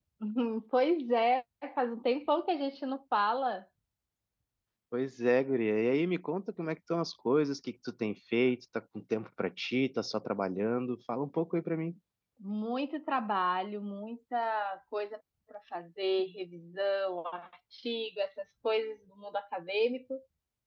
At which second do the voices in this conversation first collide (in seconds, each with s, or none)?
none